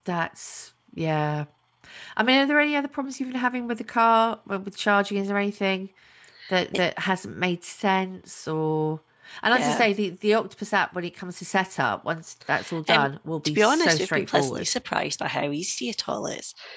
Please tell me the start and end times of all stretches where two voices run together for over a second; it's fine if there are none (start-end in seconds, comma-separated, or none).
13.4-14.7